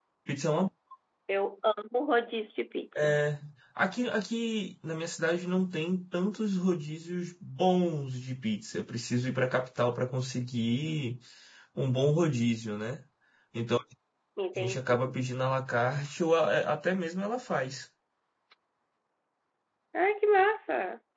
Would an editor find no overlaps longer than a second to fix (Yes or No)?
Yes